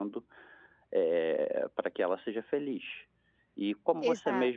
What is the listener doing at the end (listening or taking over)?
listening